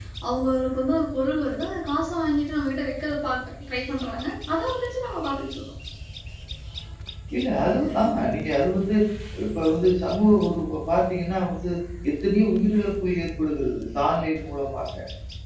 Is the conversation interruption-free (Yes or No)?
Yes